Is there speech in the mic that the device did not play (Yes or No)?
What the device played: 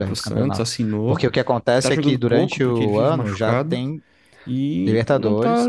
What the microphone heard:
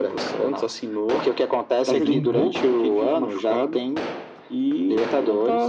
Yes